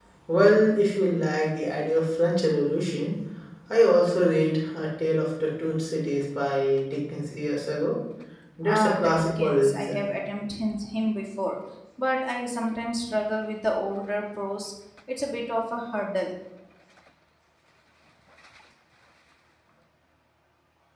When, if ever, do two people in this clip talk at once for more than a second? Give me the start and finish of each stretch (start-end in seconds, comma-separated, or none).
8.7-10.0